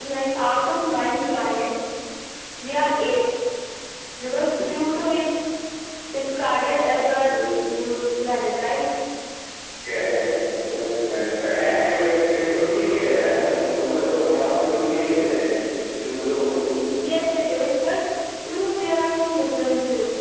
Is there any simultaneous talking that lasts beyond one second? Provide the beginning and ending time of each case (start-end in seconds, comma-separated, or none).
none